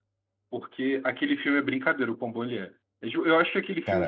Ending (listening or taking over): listening